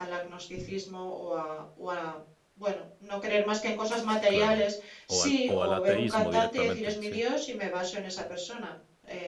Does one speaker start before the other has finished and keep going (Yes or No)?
Yes